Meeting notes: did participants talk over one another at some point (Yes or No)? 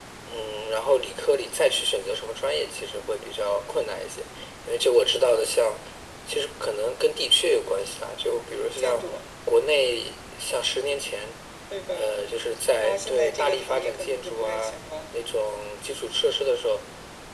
Yes